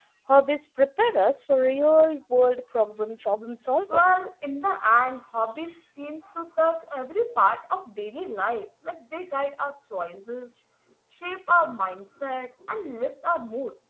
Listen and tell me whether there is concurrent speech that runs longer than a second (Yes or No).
No